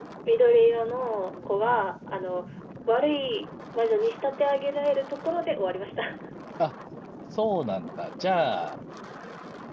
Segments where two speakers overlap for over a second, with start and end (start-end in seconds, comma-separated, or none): none